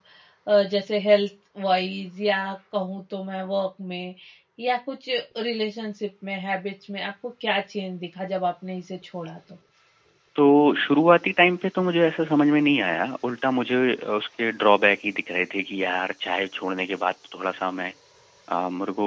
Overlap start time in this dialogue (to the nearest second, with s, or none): none